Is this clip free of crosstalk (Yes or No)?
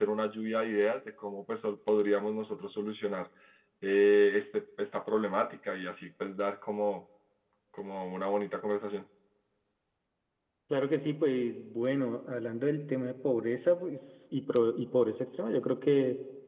Yes